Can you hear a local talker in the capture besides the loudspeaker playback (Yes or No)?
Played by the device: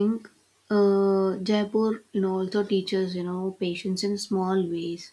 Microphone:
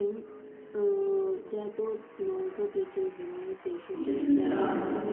Yes